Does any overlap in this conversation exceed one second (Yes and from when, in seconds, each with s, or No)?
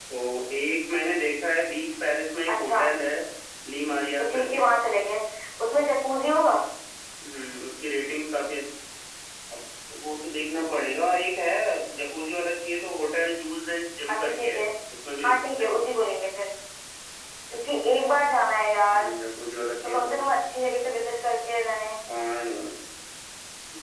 No